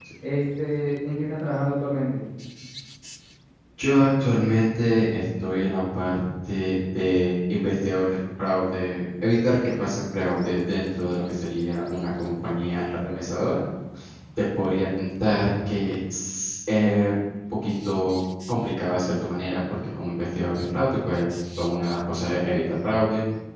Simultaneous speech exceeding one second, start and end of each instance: none

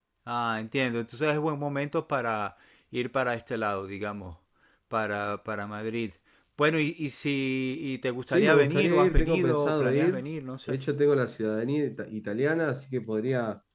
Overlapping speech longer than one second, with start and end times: 8.3-10.2

